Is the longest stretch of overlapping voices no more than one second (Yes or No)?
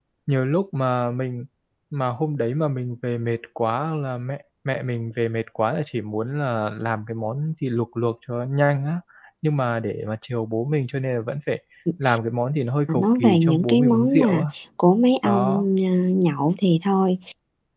No